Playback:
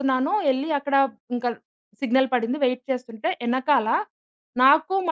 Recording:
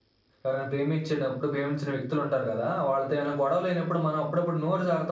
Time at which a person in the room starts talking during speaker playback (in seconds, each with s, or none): 0.4 s